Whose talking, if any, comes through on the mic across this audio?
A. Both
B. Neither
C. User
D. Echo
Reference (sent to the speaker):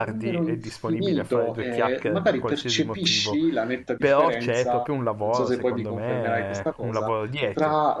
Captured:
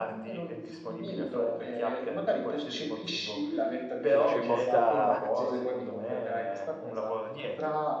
A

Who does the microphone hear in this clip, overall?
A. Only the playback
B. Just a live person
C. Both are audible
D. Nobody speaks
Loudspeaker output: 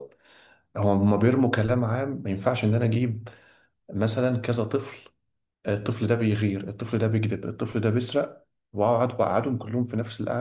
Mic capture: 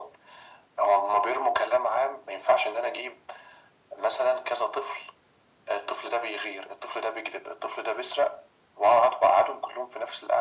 A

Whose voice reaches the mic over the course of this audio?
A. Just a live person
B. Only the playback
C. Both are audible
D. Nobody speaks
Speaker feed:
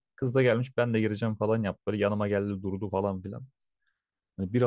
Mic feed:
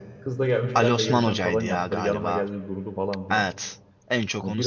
C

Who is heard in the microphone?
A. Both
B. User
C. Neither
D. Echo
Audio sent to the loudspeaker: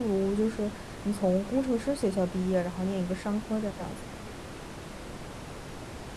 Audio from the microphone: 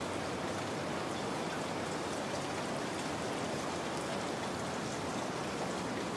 C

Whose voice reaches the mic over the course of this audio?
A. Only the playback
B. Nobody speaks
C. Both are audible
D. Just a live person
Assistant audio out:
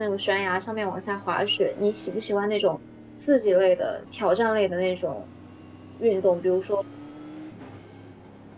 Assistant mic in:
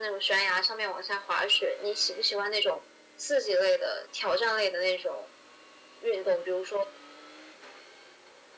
A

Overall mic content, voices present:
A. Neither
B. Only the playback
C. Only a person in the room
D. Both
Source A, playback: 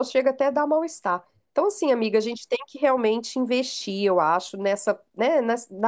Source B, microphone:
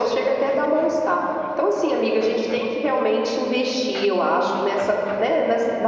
B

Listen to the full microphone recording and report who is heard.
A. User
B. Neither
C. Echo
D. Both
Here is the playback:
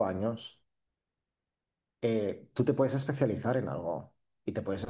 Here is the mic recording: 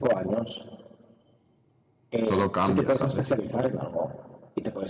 D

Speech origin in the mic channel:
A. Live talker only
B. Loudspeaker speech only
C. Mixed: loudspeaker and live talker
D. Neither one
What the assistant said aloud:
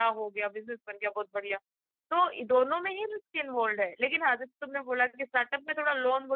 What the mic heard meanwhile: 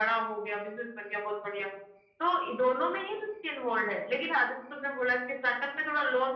B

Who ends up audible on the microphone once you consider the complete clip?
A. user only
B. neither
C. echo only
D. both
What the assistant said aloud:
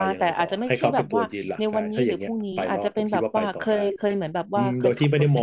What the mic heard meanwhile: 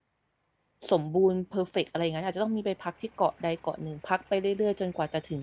A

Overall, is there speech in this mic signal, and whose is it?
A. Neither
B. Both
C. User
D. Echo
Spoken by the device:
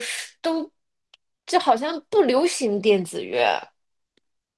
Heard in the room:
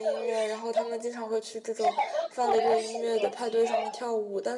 B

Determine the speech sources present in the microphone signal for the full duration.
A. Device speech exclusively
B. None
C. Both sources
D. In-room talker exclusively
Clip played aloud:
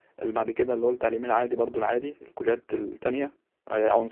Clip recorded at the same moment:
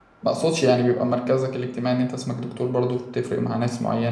D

